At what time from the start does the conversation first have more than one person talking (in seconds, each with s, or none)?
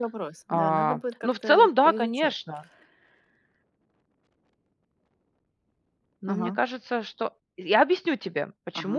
0.5 s